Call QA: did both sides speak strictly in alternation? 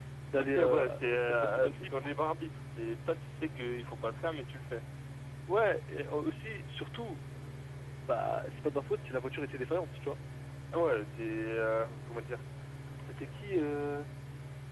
No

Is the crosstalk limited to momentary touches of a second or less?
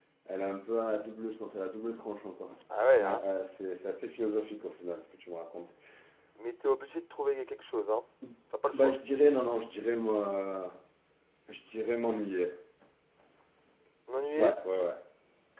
Yes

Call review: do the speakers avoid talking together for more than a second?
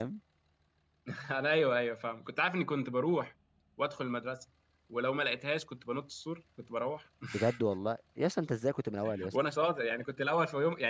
Yes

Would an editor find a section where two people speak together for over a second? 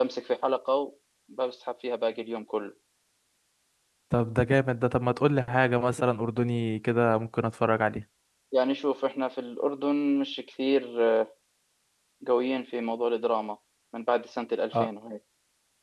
No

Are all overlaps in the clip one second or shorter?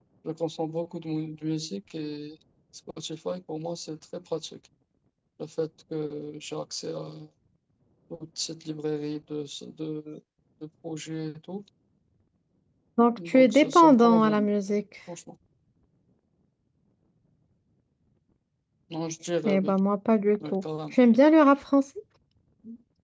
No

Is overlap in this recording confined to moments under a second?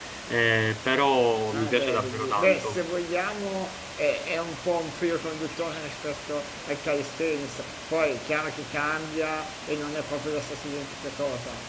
No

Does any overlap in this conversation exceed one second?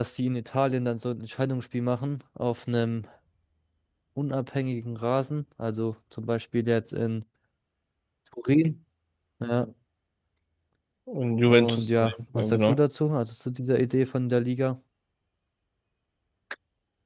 Yes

